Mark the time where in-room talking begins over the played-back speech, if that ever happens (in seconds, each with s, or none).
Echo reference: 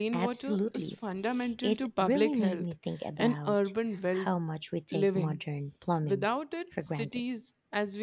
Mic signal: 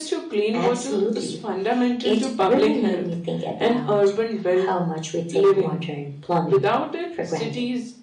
none